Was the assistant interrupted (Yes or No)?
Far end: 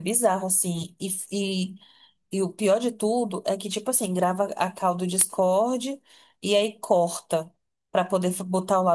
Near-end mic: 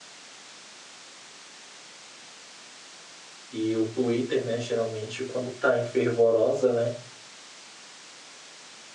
Yes